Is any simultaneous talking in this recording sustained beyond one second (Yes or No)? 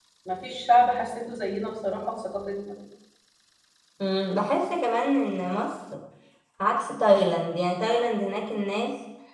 No